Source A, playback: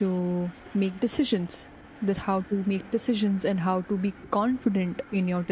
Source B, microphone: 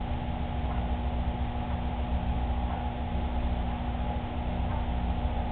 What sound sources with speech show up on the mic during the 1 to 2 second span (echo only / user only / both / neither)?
neither